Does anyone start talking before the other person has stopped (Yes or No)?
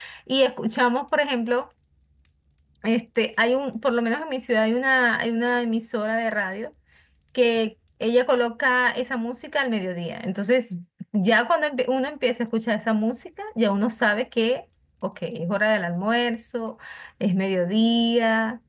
No